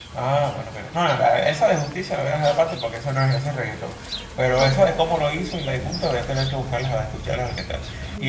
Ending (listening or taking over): taking over